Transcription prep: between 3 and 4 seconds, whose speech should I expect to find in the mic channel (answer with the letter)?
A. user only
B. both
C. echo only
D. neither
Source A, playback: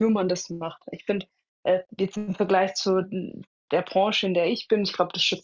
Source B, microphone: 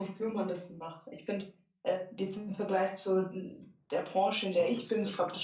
C